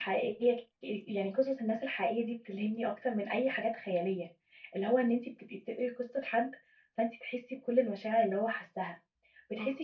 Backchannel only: Yes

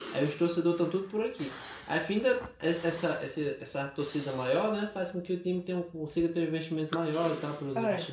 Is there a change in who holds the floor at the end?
Yes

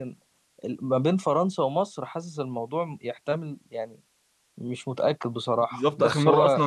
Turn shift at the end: Yes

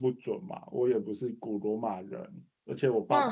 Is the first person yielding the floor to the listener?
No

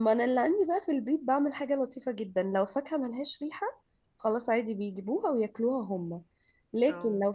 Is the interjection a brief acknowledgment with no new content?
Yes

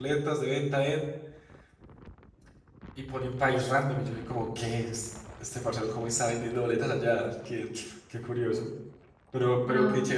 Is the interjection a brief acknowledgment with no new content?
Yes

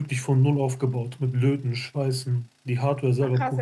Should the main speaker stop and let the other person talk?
Yes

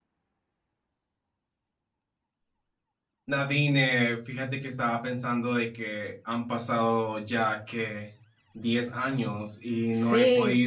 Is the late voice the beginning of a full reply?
No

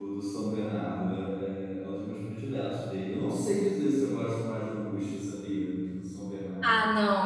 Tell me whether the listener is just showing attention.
No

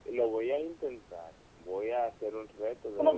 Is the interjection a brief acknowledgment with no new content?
No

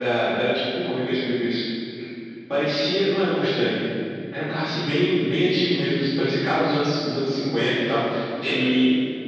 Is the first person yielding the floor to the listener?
No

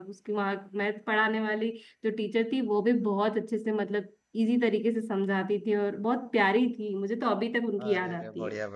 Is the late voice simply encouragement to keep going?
No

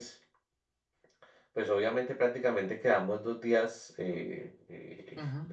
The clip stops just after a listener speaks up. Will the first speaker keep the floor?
Yes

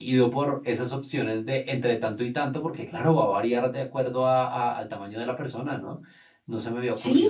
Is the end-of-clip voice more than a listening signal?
Yes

